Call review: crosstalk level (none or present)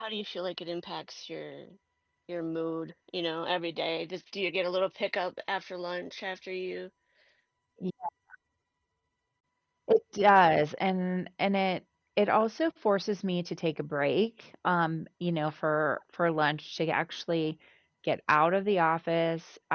none